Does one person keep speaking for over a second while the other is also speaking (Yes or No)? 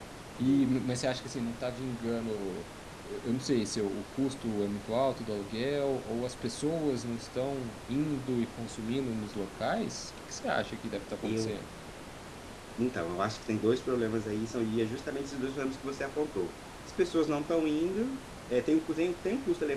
No